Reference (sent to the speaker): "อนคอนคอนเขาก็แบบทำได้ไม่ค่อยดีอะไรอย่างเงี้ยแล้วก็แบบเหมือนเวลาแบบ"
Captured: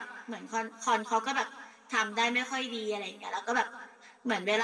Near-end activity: none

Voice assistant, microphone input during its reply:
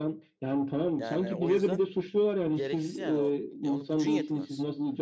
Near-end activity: present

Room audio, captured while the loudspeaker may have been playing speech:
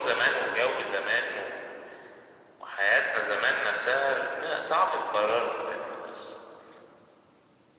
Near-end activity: none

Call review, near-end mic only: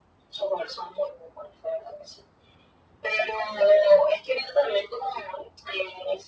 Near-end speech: none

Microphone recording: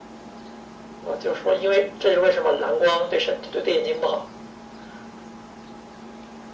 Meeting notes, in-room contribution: none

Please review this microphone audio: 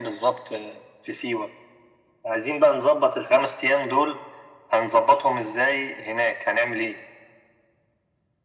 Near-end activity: none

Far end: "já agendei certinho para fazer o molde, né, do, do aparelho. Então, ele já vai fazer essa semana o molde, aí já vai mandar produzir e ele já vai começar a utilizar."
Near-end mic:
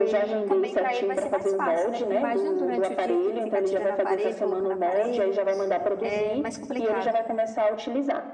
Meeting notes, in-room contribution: present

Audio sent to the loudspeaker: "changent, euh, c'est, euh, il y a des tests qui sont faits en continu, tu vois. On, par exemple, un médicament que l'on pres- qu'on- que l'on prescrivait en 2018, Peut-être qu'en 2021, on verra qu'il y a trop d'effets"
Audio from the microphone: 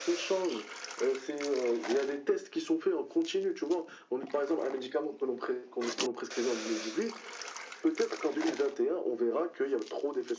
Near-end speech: none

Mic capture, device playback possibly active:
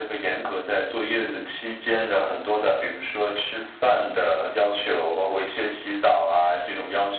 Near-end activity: none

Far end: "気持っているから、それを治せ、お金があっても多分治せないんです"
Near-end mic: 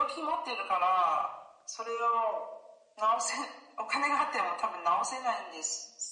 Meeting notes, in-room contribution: none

